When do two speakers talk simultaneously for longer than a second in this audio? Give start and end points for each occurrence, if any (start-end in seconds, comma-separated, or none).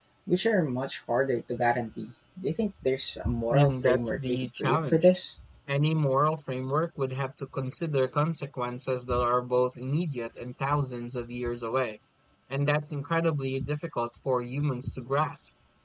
3.5-5.2